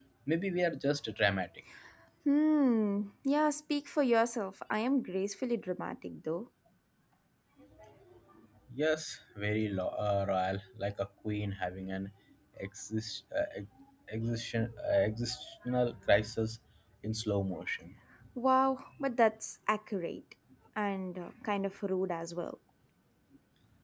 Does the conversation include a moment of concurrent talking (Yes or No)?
No